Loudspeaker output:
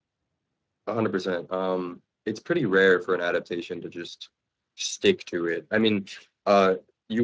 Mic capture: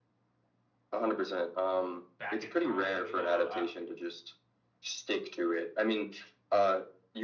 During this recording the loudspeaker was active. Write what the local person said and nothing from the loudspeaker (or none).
back in time, you know, uh,